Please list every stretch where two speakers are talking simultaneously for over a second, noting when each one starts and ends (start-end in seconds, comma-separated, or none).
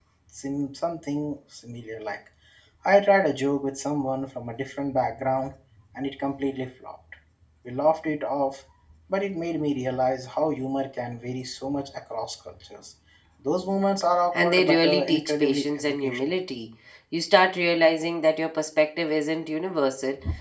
14.3-16.3